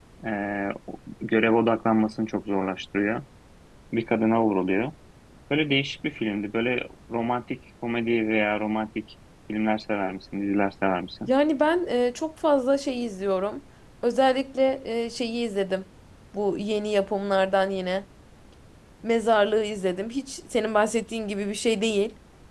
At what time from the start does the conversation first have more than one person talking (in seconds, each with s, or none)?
none